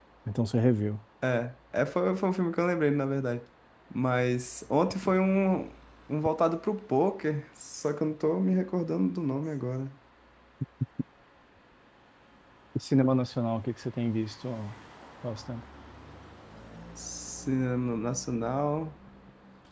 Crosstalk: none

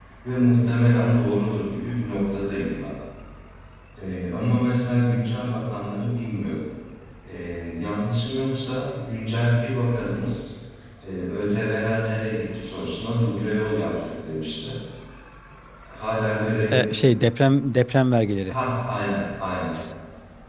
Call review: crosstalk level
none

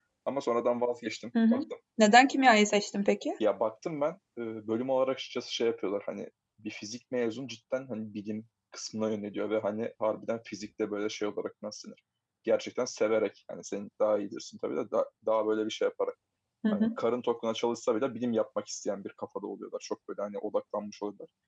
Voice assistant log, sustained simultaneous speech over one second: none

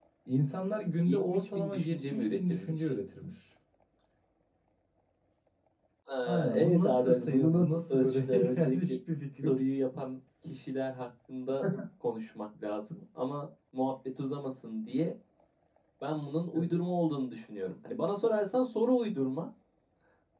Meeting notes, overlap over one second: present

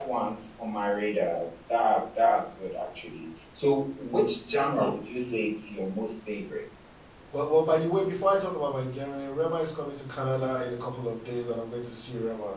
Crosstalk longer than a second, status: none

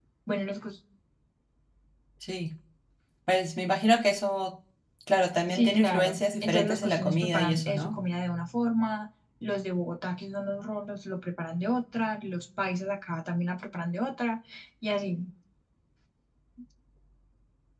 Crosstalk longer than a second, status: present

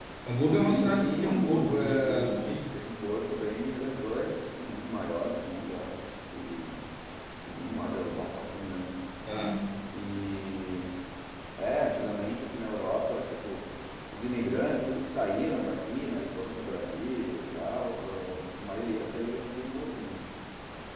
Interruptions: present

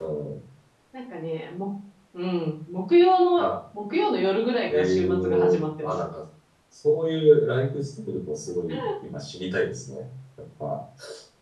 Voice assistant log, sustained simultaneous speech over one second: present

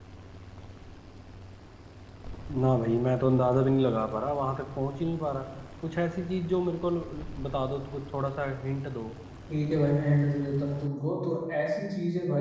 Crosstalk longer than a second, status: none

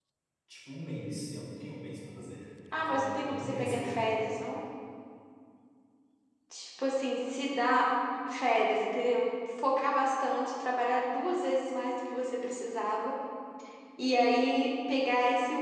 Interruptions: present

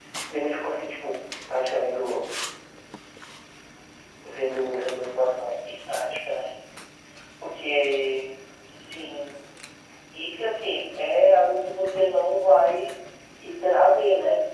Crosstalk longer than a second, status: none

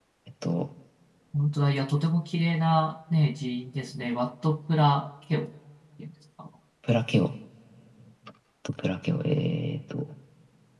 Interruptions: none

